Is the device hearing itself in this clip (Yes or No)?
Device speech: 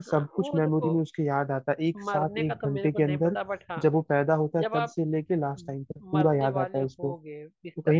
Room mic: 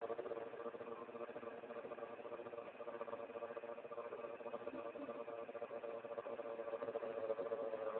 No